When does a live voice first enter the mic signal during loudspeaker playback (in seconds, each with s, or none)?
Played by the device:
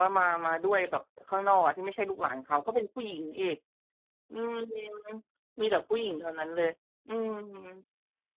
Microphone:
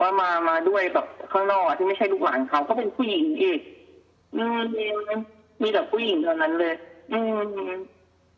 none